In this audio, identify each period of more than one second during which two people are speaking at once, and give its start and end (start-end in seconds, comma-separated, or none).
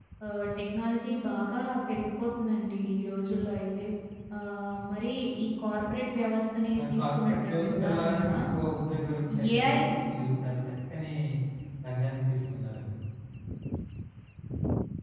6.8-8.4